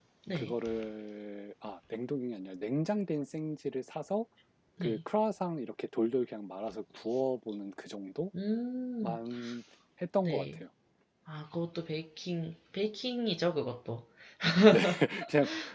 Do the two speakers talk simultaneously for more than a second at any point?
No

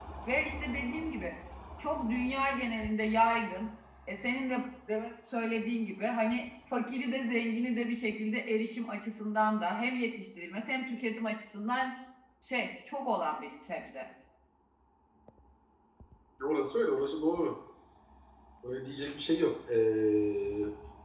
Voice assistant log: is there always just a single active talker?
Yes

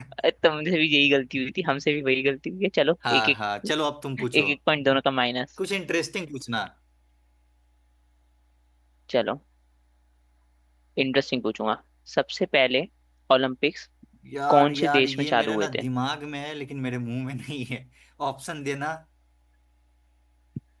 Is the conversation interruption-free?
No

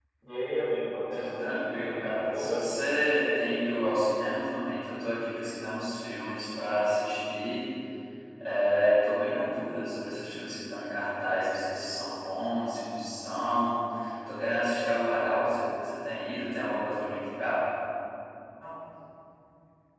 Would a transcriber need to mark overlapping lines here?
Yes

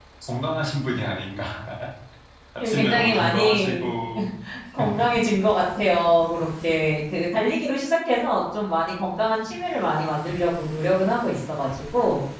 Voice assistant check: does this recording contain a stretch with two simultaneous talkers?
Yes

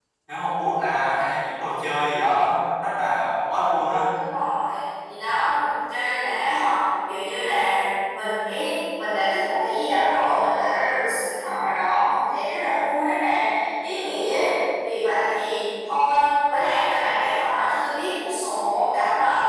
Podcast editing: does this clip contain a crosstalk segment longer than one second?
No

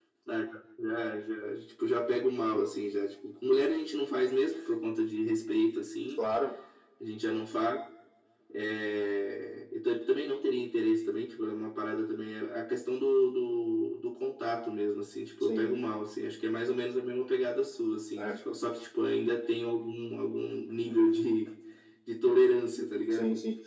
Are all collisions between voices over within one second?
Yes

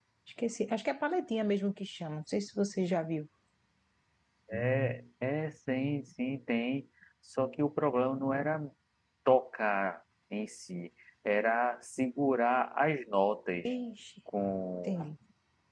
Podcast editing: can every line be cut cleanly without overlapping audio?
Yes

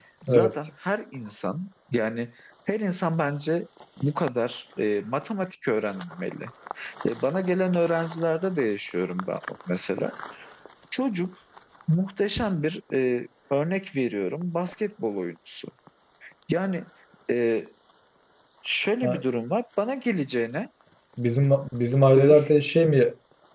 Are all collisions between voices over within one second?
Yes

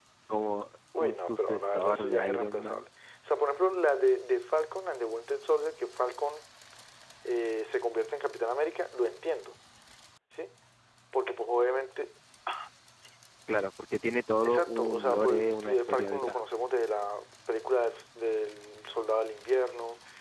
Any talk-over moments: Yes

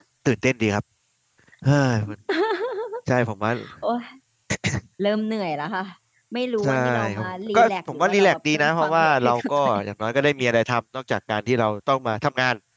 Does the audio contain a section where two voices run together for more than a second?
Yes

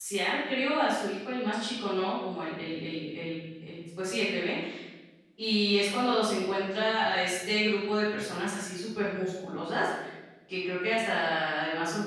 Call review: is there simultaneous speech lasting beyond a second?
No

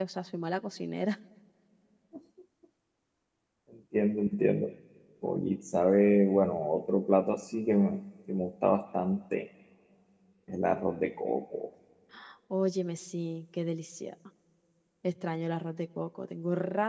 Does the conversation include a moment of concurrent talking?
No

